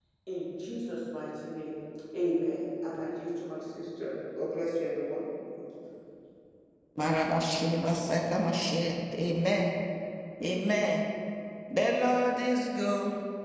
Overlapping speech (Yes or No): No